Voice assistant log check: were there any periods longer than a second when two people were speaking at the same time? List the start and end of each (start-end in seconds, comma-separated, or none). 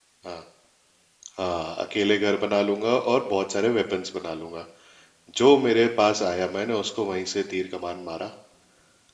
none